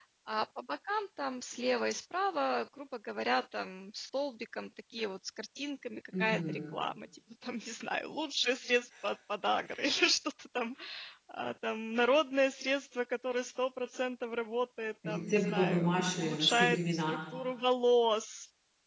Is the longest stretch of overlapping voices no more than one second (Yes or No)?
No